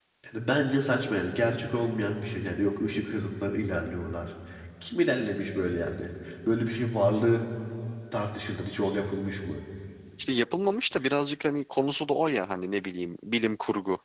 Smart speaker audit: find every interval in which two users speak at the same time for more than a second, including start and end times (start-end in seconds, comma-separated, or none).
none